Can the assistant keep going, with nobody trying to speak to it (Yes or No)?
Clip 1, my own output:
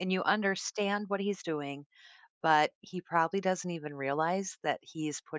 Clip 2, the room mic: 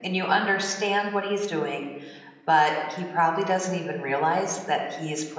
Yes